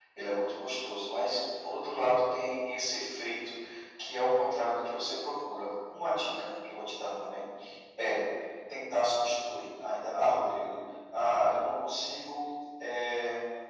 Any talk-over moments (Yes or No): No